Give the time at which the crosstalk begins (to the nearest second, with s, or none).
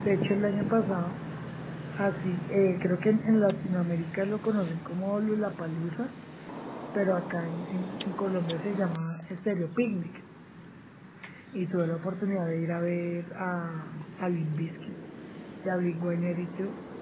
none